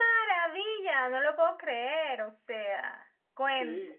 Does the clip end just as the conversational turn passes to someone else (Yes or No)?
No